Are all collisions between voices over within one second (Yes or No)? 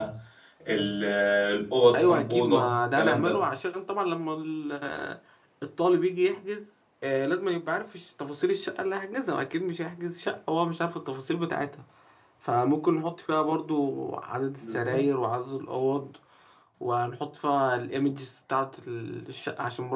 No